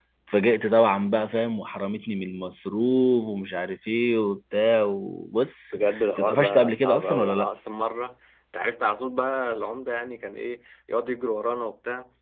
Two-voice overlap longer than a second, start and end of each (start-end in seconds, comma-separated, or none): 5.7-7.5